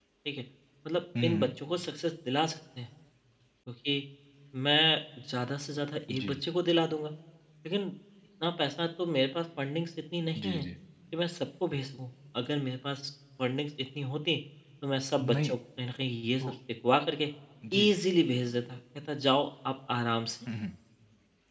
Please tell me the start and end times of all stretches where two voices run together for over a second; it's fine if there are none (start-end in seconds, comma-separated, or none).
none